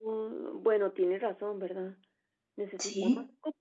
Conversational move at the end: listening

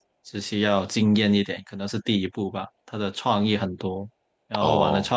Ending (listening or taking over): listening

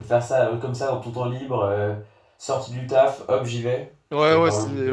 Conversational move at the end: taking over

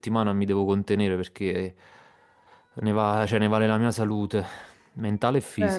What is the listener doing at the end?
taking over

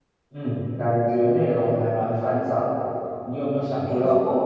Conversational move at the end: listening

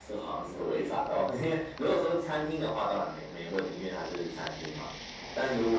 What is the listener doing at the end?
listening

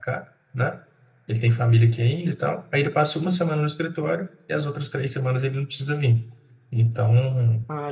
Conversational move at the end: listening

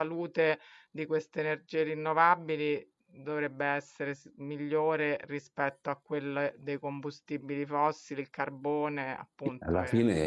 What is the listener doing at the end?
taking over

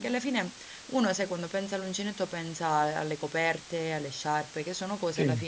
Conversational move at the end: taking over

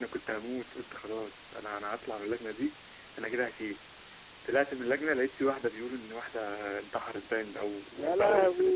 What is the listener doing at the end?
listening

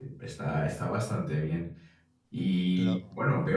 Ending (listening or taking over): listening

